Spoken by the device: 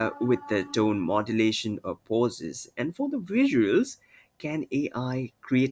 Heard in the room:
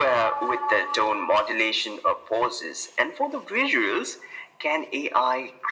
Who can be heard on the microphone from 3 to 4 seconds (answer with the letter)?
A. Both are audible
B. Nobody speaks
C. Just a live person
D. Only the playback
D